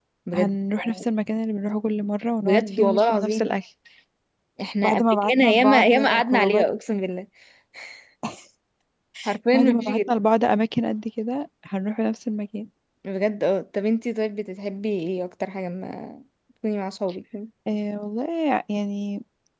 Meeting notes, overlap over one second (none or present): present